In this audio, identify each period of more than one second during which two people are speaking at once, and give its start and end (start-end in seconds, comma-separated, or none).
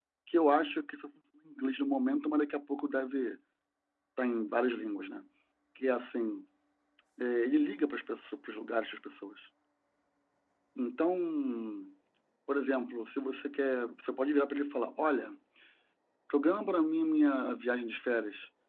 none